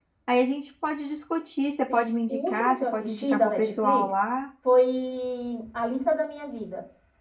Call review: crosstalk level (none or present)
present